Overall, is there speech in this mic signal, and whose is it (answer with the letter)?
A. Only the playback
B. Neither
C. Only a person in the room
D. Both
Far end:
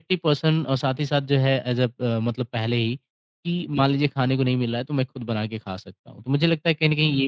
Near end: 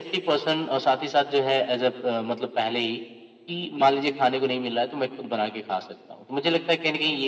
A